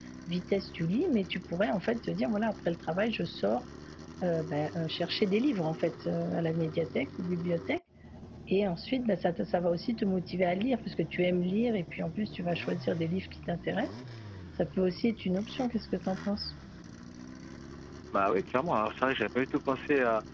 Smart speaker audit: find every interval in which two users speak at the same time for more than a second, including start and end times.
none

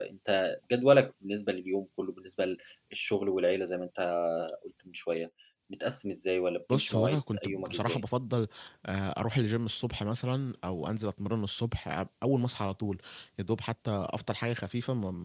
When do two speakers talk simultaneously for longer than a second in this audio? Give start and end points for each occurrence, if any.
6.7-8.0

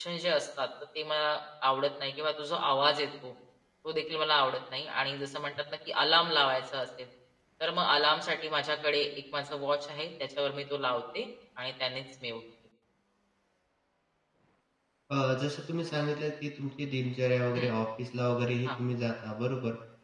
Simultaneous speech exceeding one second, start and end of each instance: none

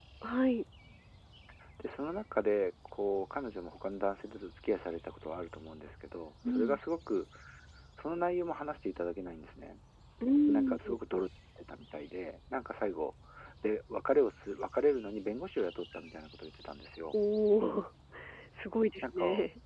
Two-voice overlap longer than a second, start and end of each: none

